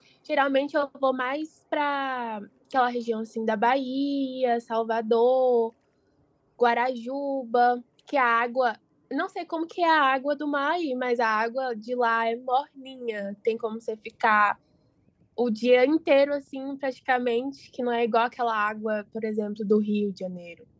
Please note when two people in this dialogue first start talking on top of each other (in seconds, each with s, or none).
none